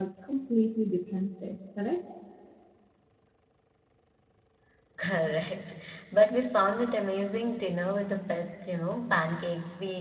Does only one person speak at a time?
Yes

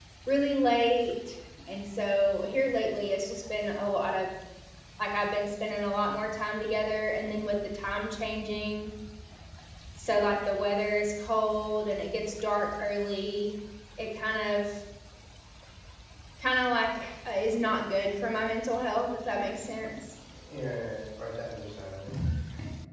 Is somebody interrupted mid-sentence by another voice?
No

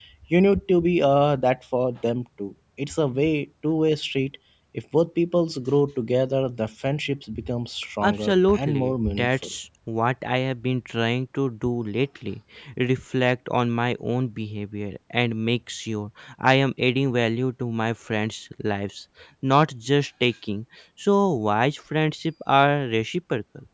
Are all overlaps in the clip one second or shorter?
No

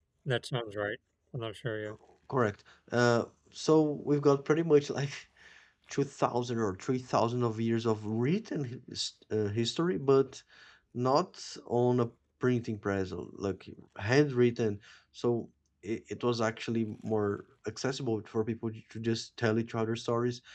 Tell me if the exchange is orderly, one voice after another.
Yes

